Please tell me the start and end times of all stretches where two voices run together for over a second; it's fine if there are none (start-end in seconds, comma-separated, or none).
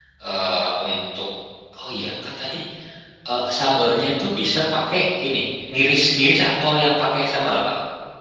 none